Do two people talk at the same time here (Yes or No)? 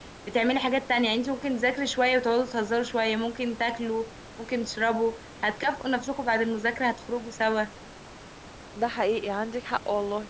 No